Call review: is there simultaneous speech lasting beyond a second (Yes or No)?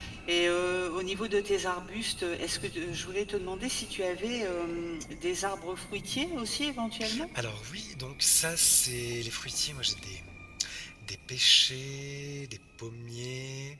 No